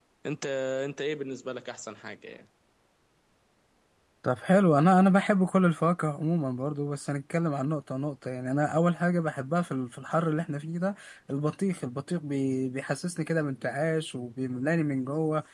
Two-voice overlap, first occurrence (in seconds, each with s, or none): none